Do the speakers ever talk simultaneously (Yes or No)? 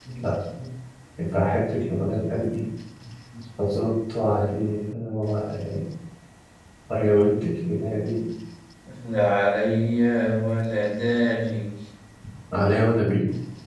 No